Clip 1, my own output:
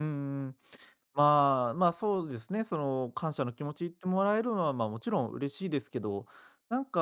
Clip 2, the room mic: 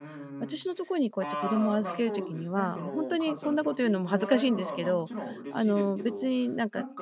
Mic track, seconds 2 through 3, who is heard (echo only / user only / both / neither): both